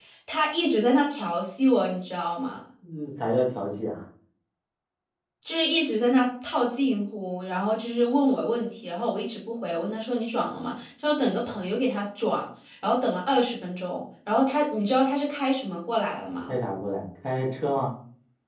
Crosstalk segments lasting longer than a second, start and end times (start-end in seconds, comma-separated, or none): none